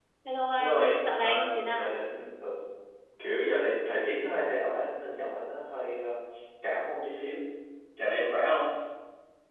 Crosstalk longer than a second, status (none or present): present